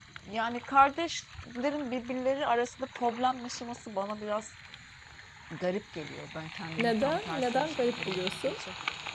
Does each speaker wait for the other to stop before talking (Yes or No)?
No